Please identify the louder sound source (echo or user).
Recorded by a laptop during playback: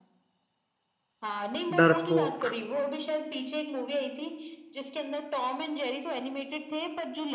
user